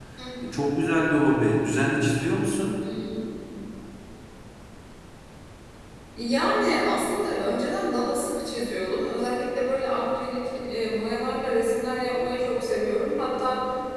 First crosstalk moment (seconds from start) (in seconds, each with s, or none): none